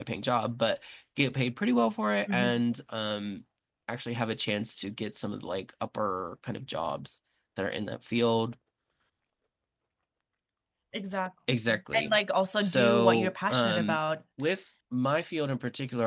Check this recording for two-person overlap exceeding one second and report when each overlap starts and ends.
12.6-14.0

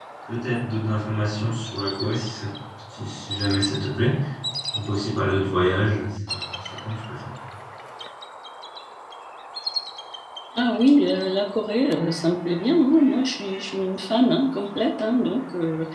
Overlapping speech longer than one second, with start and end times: none

